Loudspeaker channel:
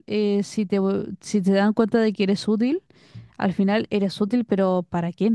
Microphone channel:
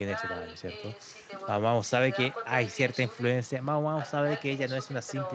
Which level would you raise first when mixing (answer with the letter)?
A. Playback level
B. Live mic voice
A